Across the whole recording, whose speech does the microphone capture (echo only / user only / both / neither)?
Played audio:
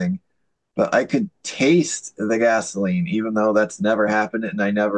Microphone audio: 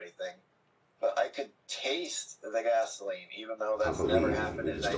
both